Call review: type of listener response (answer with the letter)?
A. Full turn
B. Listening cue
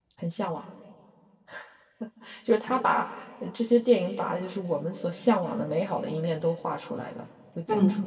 A